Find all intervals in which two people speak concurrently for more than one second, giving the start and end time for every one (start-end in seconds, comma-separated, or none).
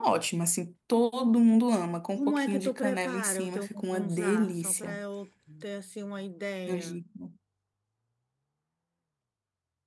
2.2-5.0